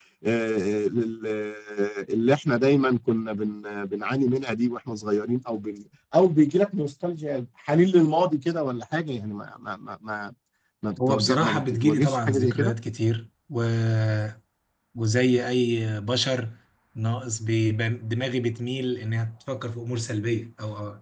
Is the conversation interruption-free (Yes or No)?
No